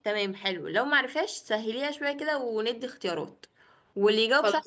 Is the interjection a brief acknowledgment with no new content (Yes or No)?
Yes